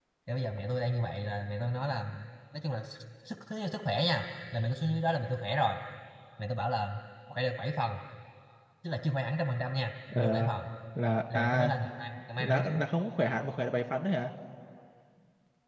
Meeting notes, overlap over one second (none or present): none